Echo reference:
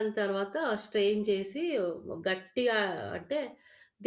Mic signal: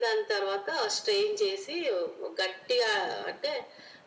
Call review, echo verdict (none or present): present